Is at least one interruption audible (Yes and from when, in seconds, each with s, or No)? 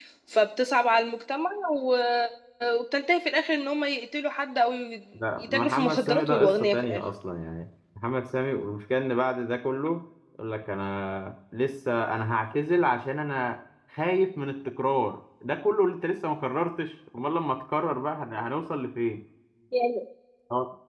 Yes, from 5.4 s